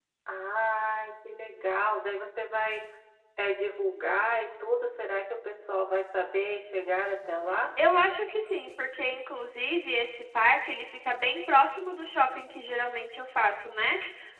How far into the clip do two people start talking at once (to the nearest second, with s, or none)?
none